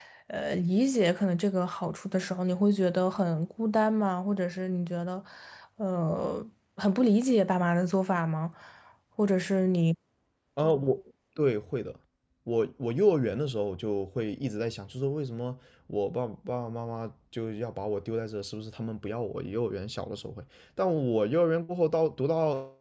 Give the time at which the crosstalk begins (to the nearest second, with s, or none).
none